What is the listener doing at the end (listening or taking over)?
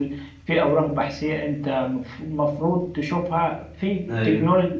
listening